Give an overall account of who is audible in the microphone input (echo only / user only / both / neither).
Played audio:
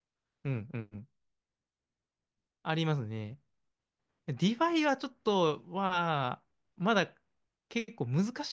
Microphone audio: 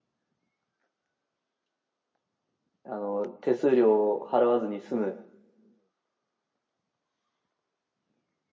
user only